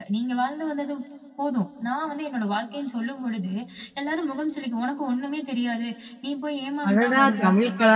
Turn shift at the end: Yes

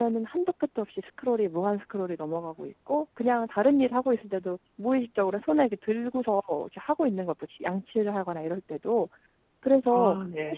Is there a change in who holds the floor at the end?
No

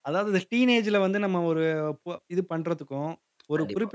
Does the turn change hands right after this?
No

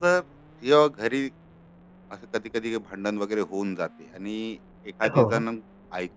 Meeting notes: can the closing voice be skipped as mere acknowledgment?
Yes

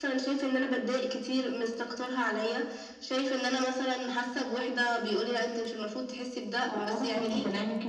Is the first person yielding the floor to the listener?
Yes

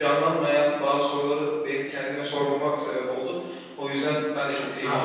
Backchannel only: No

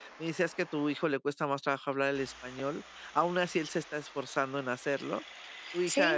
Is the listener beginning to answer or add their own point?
Yes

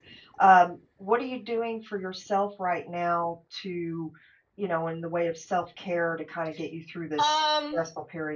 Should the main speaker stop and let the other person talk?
Yes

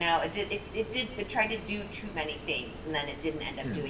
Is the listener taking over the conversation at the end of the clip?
No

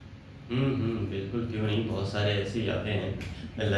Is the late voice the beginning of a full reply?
No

